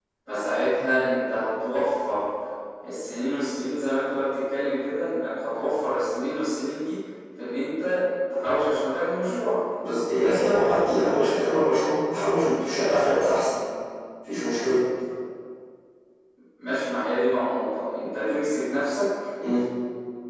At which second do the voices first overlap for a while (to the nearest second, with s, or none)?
none